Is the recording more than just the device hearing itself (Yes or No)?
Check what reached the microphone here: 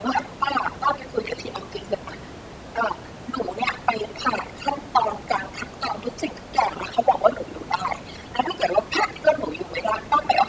No